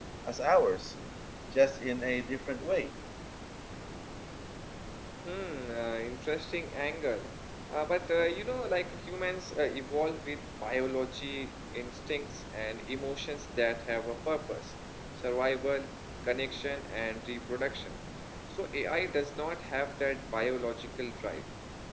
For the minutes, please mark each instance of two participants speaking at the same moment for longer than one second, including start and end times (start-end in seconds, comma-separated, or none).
none